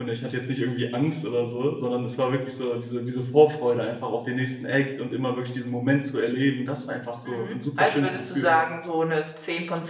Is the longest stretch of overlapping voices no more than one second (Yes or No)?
No